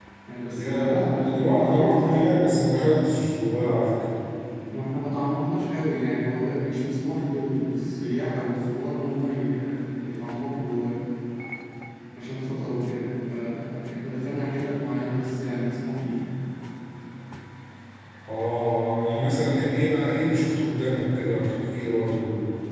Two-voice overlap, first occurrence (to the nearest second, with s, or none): 1 s